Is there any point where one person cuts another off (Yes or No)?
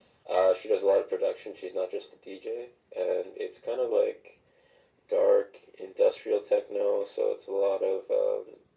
No